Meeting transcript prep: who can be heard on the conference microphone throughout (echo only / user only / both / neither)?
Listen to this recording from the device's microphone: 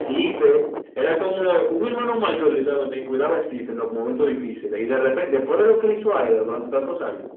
echo only